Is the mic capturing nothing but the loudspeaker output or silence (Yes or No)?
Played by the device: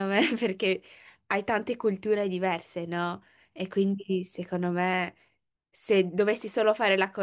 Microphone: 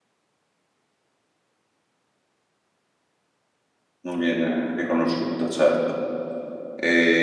No